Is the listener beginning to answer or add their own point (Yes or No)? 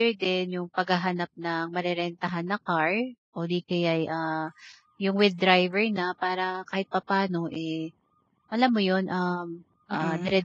No